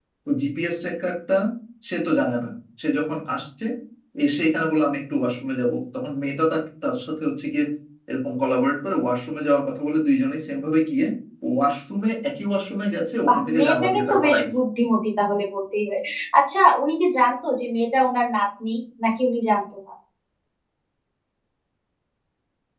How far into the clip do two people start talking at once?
13 s

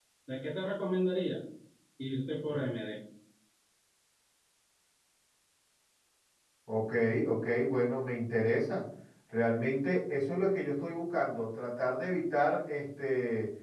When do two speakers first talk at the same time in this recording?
none

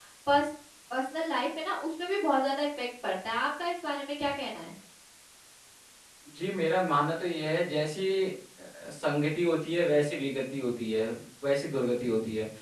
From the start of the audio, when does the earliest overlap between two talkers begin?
none

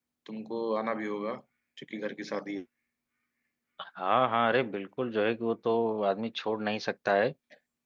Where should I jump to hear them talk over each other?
none

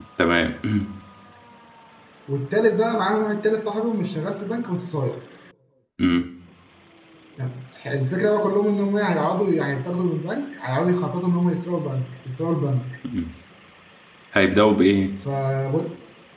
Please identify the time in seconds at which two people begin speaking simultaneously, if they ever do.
none

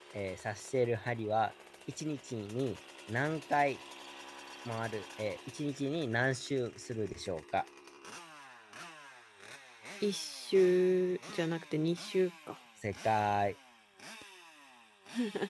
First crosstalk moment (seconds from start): none

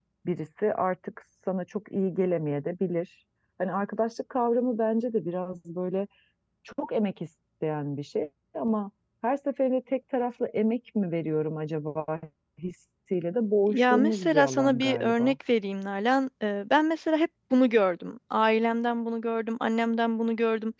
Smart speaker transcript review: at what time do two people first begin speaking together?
14 s

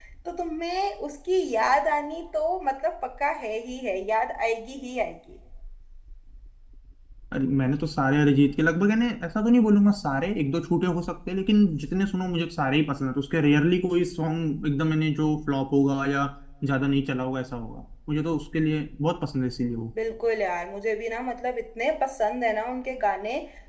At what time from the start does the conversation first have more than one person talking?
none

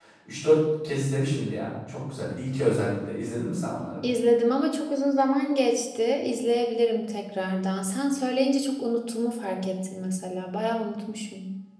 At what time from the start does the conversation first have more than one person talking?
none

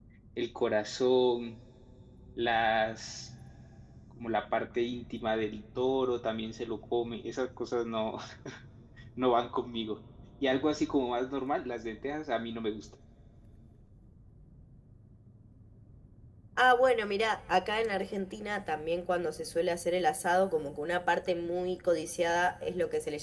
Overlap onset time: none

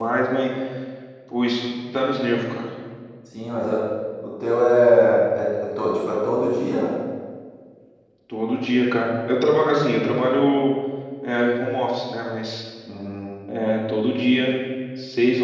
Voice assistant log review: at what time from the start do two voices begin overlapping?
none

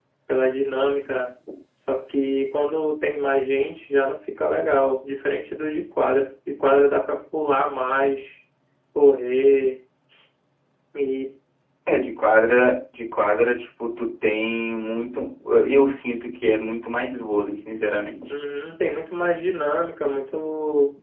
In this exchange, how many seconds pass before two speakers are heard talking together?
none

